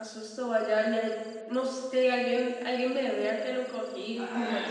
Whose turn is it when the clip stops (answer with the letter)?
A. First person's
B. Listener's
B